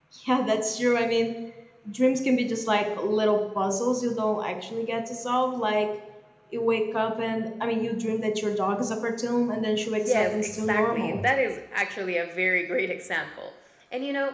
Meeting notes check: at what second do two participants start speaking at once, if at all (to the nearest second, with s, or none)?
10 s